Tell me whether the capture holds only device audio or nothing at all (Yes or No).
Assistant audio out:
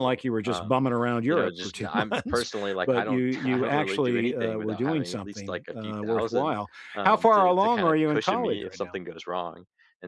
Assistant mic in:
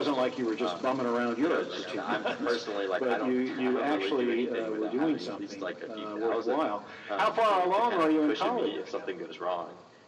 No